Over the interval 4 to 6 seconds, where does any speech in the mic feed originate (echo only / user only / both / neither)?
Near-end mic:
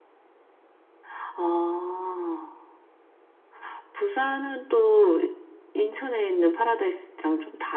echo only